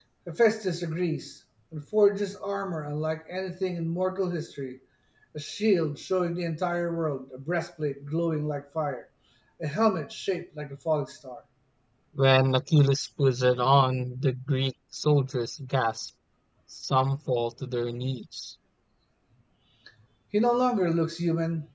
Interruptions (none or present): none